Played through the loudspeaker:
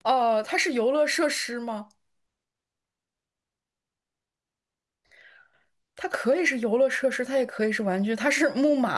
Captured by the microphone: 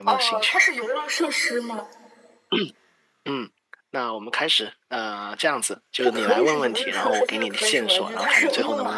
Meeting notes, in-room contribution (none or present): present